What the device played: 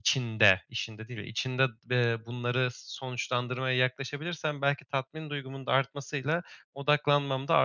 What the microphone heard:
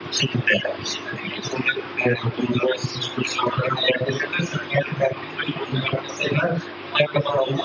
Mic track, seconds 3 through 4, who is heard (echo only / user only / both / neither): echo only